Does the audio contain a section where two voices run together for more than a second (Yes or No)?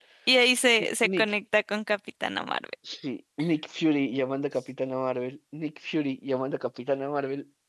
No